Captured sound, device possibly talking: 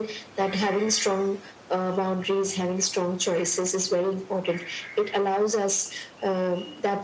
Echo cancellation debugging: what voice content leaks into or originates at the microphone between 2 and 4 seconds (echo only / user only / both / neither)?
echo only